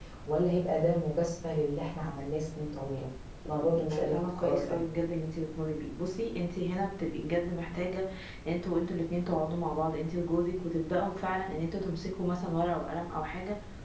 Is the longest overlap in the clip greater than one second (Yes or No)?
Yes